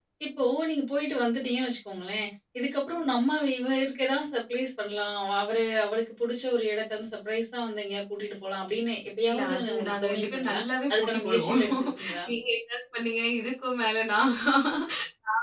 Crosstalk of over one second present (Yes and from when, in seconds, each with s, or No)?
Yes, from 9.3 s